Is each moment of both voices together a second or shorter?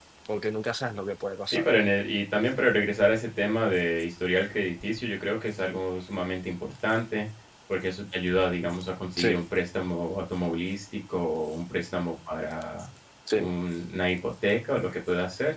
Yes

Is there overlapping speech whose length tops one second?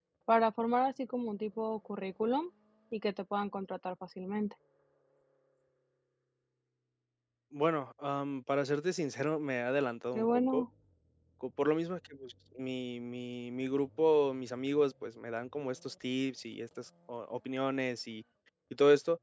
No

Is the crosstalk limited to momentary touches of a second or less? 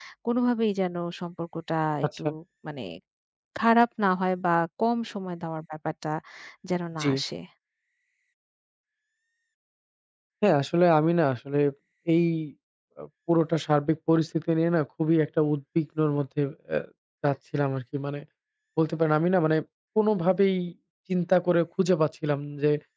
Yes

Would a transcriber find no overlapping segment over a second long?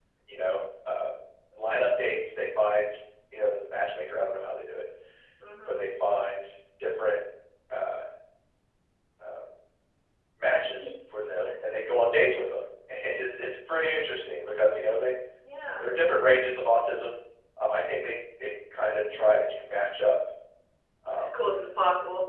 Yes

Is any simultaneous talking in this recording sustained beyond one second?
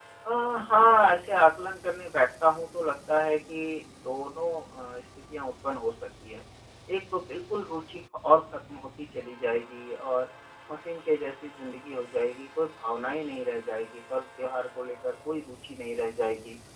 No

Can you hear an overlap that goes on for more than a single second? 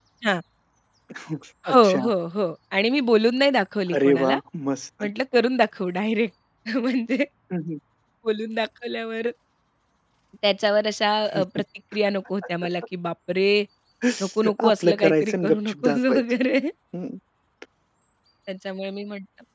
Yes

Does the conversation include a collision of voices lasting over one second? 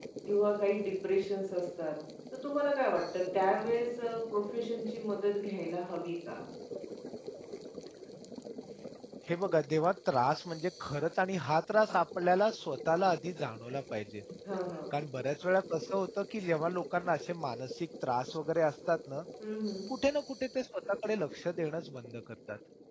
No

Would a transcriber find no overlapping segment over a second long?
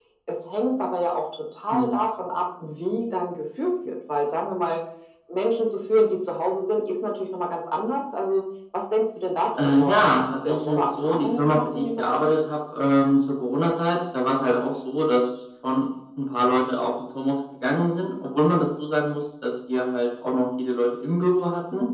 No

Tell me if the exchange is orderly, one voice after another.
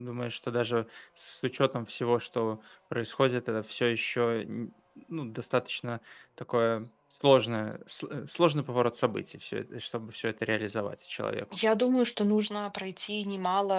Yes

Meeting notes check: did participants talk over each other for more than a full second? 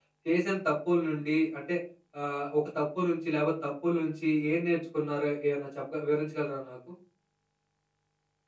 No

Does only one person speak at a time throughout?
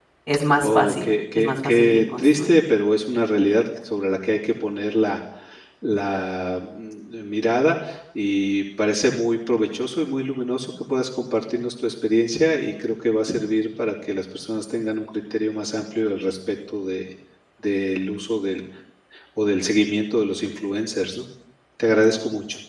No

